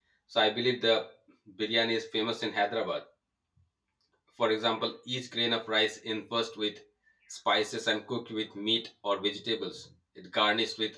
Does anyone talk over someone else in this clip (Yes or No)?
No